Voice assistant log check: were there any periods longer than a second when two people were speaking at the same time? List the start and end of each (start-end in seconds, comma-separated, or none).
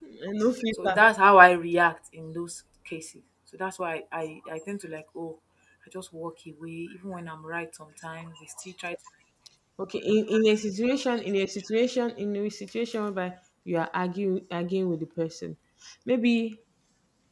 none